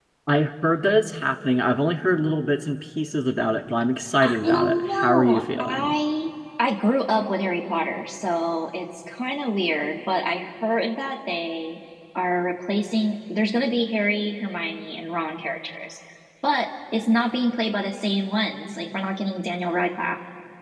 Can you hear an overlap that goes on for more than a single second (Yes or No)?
Yes